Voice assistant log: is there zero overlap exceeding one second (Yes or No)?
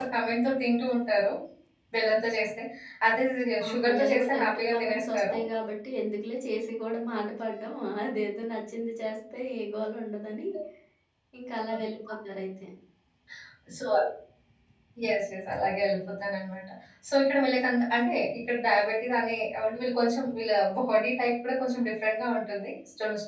No